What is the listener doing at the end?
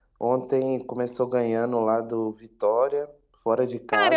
taking over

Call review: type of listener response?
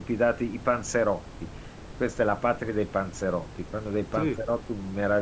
listening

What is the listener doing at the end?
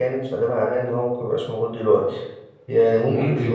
listening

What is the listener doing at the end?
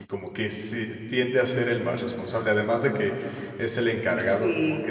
listening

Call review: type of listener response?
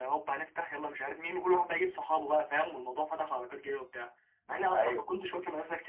listening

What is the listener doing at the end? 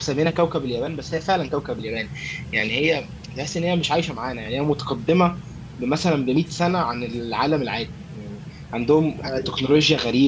listening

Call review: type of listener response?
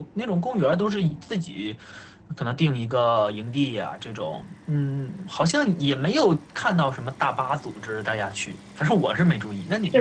taking over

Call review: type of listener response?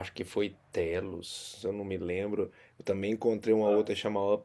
listening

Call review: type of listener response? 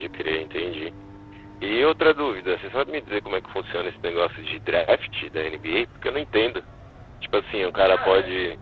listening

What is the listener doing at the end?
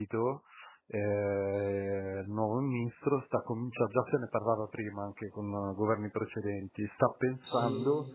listening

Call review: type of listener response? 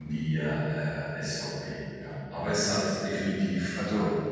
listening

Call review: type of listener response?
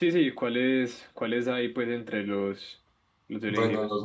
taking over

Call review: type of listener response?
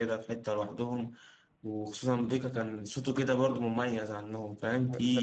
taking over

